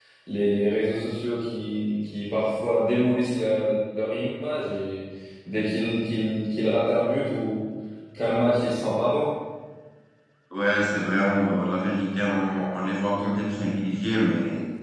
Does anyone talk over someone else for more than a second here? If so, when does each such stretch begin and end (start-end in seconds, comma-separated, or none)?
none